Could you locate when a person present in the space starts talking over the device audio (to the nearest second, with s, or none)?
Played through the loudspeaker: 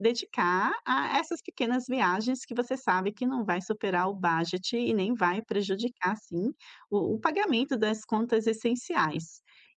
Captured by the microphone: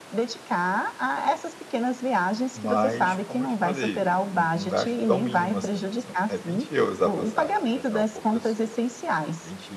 3 s